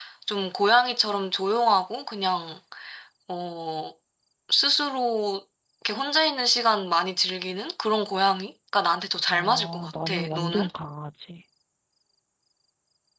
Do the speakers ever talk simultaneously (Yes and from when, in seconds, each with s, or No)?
Yes, from 9.3 s